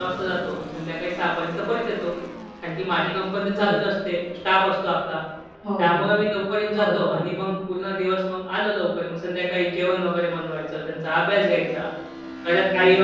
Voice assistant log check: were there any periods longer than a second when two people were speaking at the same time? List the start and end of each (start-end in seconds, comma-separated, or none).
none